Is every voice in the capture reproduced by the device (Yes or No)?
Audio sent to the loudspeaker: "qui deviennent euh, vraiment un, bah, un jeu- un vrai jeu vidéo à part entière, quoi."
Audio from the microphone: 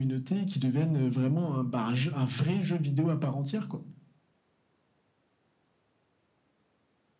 Yes